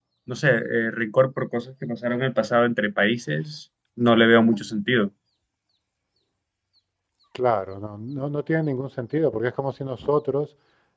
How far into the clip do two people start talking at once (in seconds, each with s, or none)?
none